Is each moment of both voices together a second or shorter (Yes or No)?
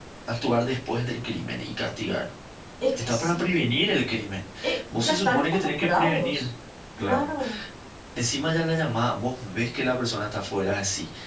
No